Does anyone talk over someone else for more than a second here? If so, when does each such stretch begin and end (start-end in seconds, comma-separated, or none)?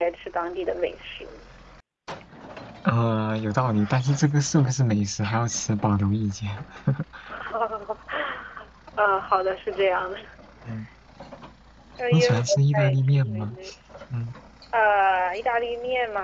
12.1-13.6